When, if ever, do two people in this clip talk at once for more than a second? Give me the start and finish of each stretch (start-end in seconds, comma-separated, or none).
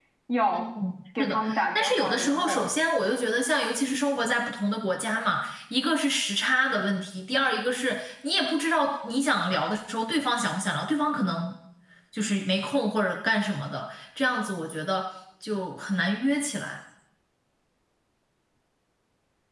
1.2-2.7